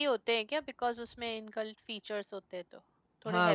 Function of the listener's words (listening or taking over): taking over